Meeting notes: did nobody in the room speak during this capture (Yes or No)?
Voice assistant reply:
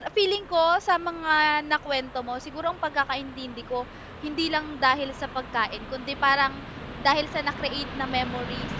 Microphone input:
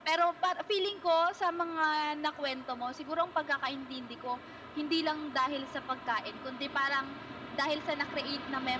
Yes